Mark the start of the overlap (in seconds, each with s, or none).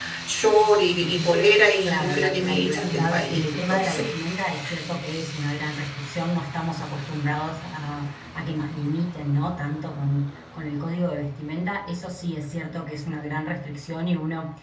1.9 s